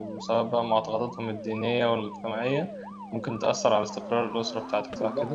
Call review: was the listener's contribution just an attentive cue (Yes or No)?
No